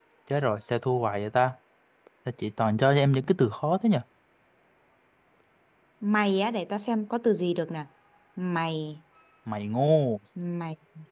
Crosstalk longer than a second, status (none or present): none